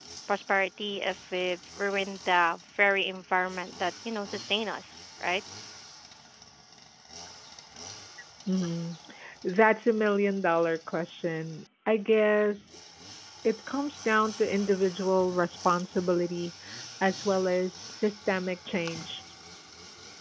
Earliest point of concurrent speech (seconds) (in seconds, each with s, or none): none